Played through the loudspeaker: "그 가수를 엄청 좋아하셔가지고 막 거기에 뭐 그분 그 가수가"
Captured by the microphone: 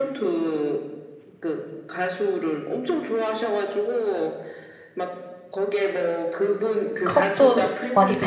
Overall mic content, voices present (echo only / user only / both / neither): both